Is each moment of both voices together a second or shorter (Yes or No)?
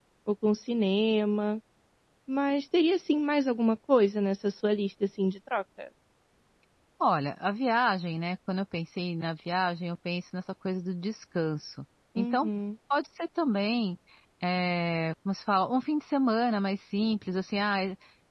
Yes